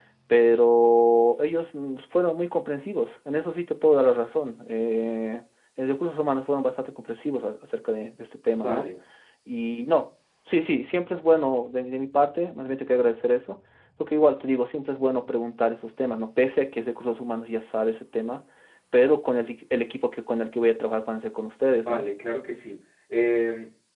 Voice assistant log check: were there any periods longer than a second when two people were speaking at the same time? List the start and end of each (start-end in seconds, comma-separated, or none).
none